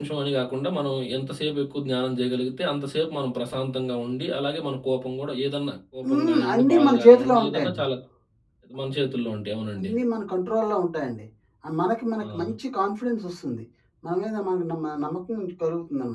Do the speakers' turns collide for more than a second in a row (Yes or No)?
Yes